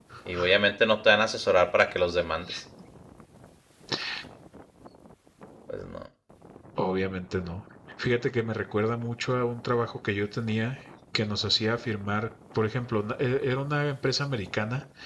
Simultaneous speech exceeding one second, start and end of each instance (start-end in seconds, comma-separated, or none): none